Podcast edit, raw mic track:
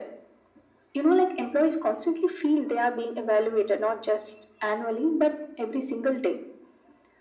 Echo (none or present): present